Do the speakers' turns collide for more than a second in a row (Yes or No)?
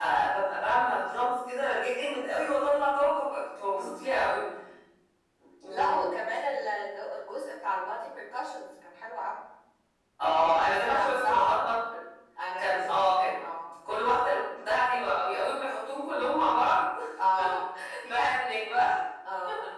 Yes